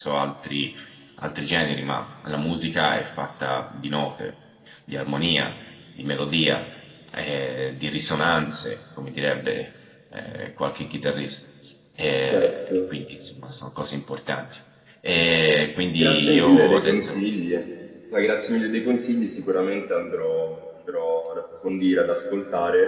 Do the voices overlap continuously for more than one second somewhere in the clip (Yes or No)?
Yes